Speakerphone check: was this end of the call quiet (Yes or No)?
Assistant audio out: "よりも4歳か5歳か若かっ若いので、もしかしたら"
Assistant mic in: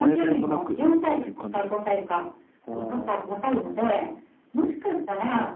No